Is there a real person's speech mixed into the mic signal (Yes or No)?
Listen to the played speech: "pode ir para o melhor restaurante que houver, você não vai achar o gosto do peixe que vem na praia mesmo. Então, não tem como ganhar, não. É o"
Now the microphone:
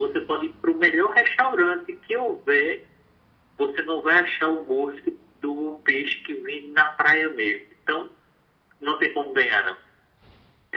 No